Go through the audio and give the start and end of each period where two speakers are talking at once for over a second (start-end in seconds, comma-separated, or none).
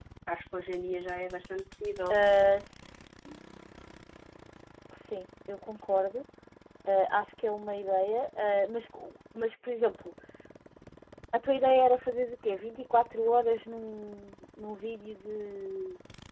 none